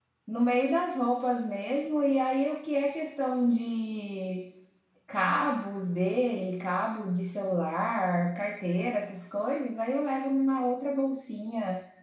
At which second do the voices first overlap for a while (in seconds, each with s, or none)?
none